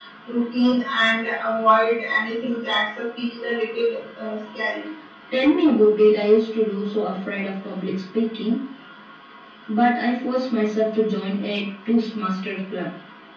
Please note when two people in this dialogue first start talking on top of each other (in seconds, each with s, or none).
none